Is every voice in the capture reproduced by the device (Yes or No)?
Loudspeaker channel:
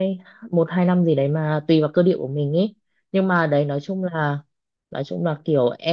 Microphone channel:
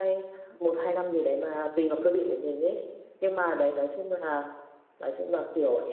Yes